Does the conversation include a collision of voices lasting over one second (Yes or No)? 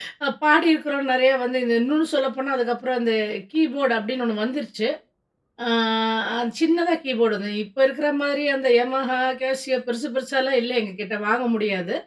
No